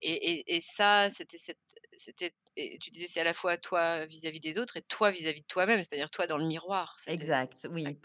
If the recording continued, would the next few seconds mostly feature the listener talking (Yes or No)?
Yes